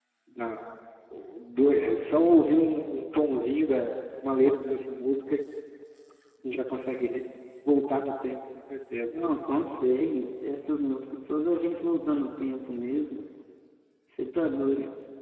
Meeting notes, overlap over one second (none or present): none